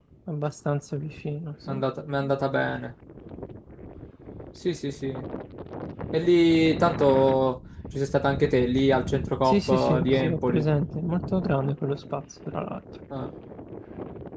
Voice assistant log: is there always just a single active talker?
No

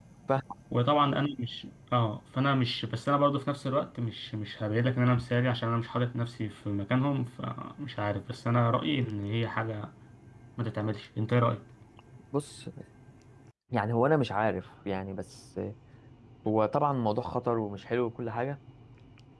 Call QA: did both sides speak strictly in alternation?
Yes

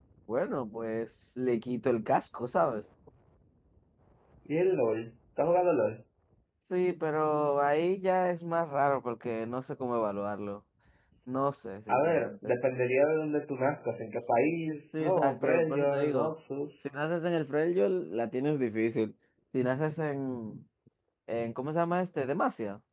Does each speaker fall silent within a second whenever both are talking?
No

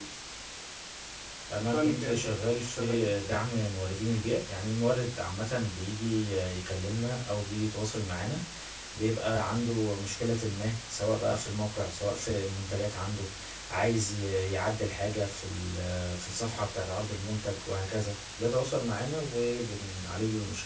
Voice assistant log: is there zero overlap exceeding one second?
No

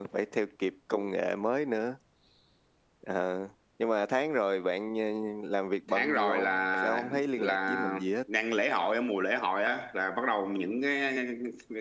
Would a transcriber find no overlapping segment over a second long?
No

